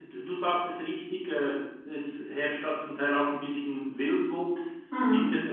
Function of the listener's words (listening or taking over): listening